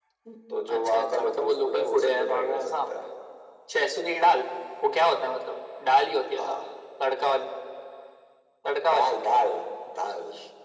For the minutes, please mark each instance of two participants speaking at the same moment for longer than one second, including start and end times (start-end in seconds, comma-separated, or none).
0.8-2.7